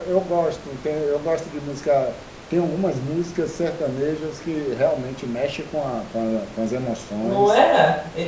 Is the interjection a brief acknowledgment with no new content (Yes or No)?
No